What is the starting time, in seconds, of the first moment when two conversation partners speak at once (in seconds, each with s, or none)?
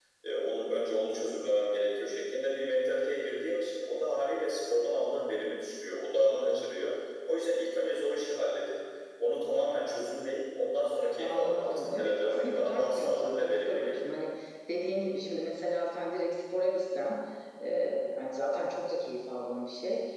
11.2 s